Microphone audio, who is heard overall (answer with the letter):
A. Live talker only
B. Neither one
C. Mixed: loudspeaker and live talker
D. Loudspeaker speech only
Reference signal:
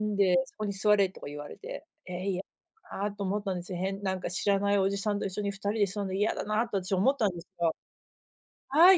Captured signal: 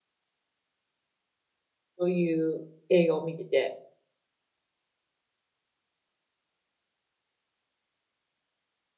A